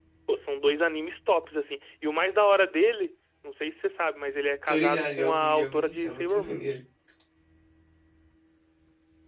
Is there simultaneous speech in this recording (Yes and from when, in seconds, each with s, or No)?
Yes, from 4.7 s